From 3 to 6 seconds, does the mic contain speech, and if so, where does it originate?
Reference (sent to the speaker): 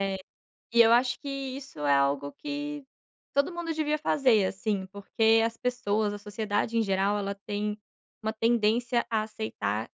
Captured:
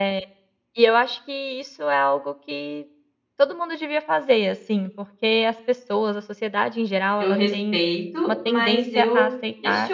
echo only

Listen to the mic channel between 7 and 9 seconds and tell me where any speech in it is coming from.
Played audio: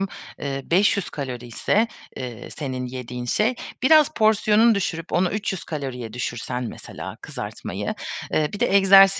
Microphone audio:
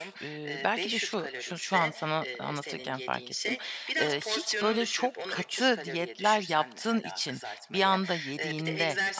both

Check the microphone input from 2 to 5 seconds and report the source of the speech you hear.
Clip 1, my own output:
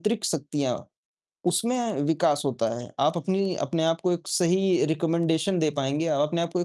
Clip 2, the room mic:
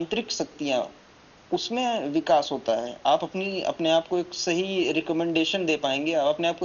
echo only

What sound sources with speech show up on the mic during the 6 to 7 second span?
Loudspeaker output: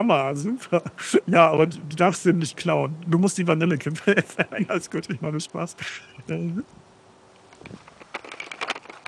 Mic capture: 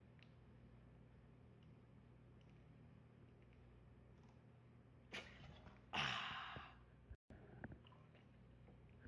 neither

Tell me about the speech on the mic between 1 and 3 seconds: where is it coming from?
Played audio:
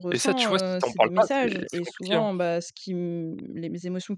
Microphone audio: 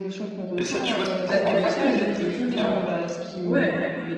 both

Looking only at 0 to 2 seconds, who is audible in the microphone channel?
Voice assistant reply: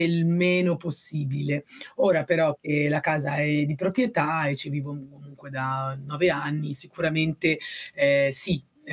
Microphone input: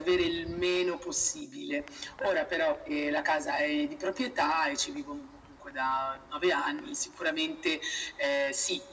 echo only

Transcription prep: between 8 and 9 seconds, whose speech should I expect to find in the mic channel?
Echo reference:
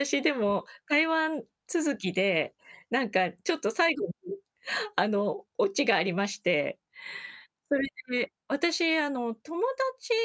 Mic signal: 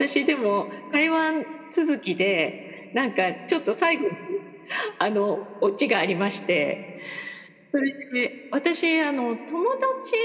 echo only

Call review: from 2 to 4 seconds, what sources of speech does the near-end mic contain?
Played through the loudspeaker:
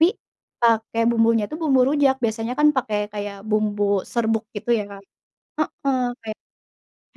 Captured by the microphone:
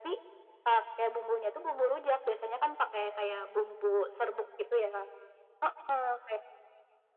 echo only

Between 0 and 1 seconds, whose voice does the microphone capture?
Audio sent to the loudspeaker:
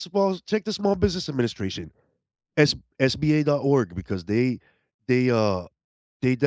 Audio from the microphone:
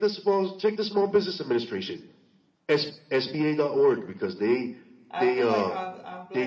echo only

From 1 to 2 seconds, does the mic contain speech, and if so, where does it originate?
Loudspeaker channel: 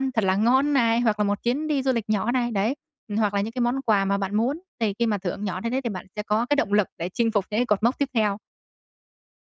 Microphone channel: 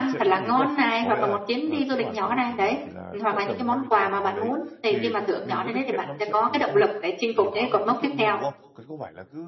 both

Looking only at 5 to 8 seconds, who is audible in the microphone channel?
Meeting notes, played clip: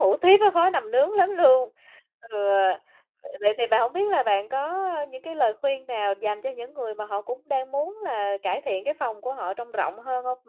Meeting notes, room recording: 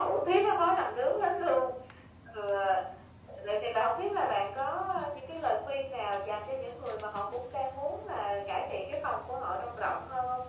echo only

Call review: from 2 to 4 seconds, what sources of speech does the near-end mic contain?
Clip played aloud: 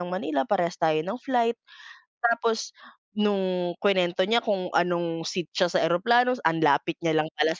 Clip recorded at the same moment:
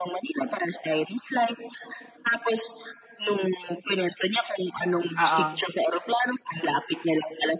echo only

